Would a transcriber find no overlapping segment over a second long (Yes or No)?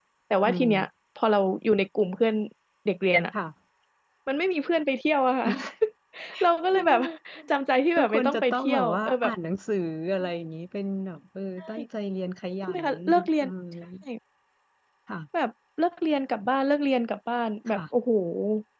No